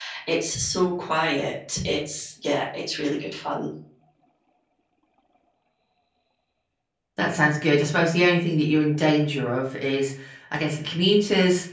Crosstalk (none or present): none